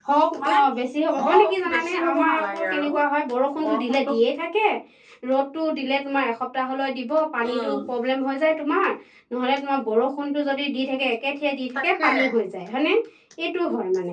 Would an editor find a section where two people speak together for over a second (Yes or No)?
Yes